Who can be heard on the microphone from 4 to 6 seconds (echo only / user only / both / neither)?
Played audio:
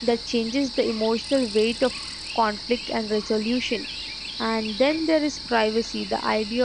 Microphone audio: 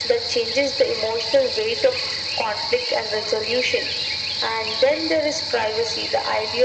echo only